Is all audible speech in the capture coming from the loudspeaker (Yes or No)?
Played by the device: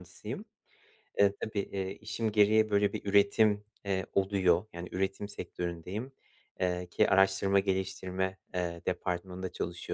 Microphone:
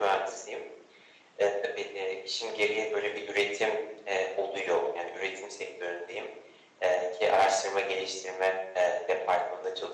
Yes